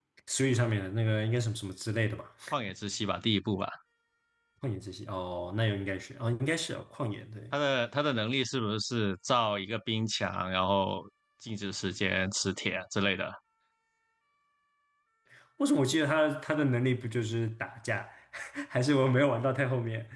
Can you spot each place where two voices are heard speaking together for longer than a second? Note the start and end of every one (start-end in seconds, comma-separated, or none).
none